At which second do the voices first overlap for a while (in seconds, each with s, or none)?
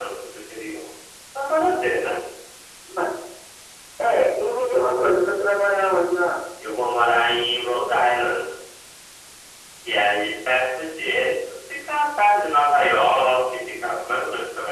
none